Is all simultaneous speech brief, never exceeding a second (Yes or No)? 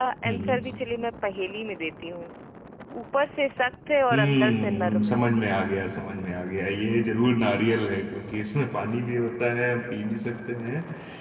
No